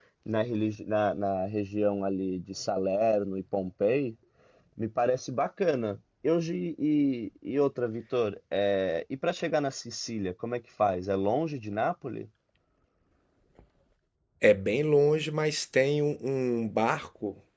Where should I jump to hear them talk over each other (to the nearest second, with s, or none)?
none